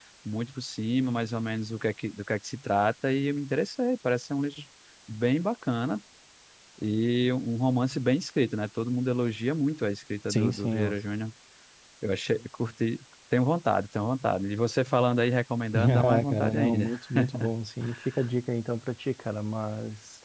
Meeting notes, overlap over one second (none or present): present